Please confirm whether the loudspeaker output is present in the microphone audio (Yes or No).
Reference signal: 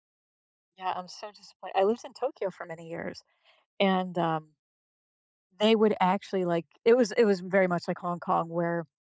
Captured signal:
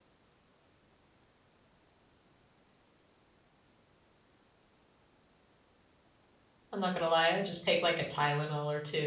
No